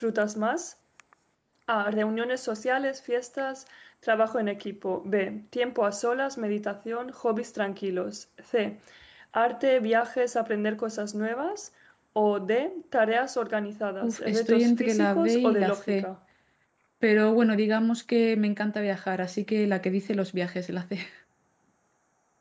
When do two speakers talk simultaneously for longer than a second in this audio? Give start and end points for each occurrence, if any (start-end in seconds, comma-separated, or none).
14.0-16.1